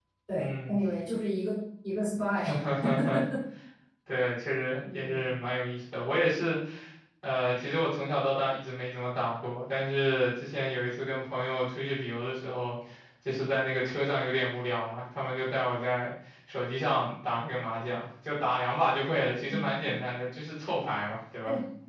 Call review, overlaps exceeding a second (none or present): none